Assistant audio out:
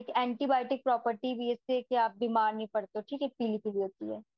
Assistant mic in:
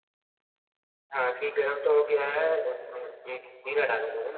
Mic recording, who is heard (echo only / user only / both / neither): user only